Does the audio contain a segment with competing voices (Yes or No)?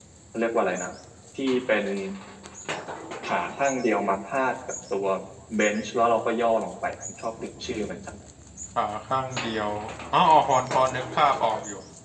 No